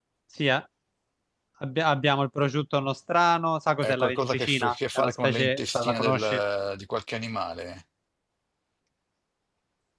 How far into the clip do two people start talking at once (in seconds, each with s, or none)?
3.8 s